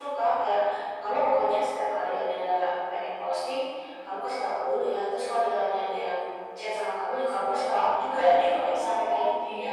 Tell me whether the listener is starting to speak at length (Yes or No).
Yes